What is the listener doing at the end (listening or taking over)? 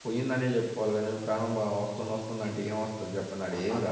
taking over